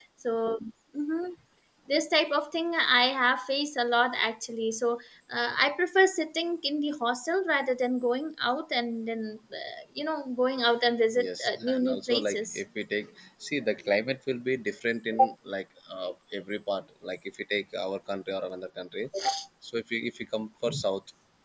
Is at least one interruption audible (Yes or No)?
Yes